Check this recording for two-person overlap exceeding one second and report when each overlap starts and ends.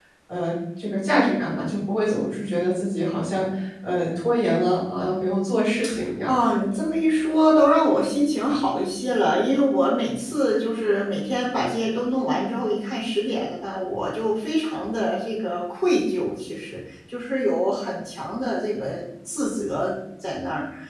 none

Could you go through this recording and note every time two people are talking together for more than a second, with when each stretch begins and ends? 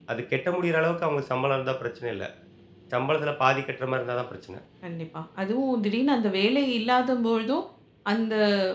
none

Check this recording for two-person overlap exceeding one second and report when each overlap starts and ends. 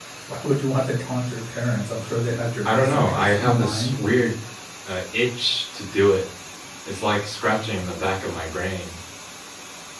2.6-4.0

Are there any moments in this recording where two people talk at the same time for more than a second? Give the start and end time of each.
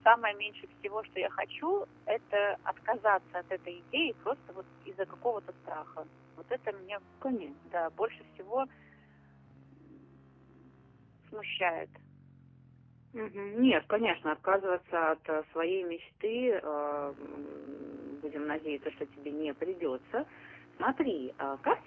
none

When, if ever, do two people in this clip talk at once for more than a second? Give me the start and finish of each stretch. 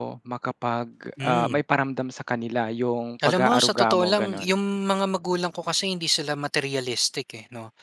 3.2-4.6

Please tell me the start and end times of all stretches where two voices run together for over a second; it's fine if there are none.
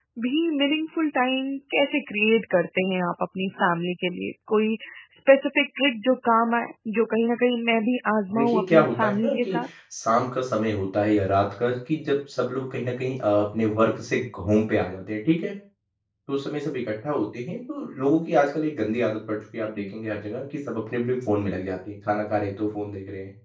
8.3-9.7

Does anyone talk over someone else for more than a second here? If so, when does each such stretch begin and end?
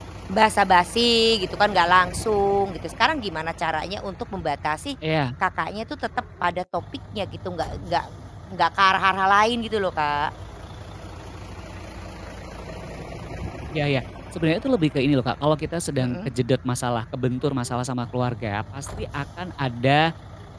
none

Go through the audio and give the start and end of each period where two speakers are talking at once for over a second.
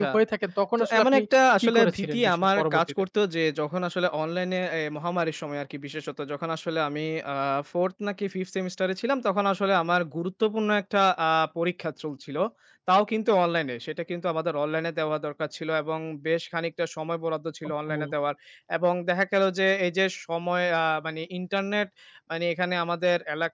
1.6-3.0

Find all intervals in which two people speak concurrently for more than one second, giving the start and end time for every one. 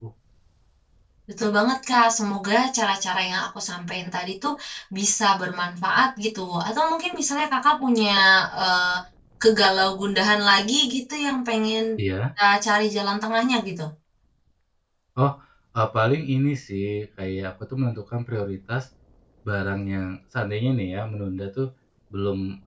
none

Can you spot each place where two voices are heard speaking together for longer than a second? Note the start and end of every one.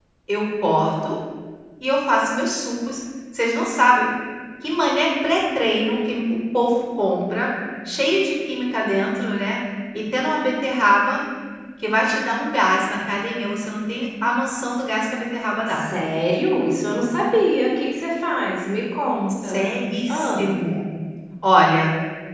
none

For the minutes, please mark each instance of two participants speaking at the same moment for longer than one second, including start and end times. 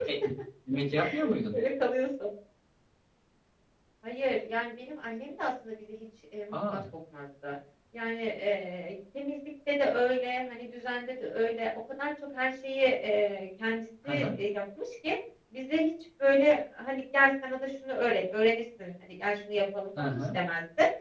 none

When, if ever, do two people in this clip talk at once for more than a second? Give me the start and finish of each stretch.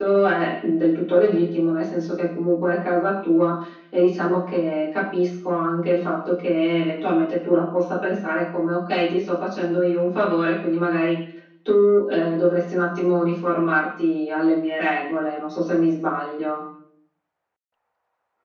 none

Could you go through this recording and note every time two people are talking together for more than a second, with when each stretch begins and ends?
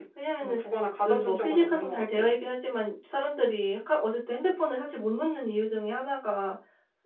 1.0-2.3

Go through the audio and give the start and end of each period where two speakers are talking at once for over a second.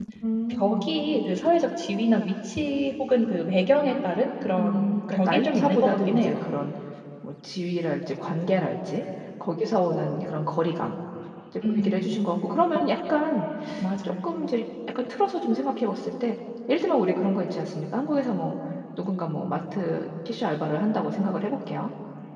4.5-6.3

